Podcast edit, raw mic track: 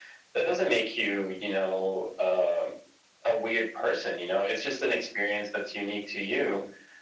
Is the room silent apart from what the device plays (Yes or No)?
Yes